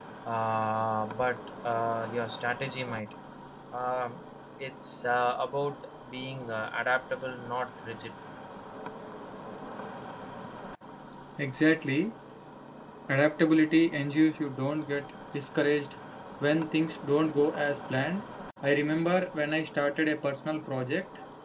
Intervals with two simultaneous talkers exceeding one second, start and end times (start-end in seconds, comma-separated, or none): none